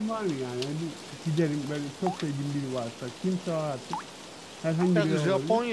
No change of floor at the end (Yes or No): No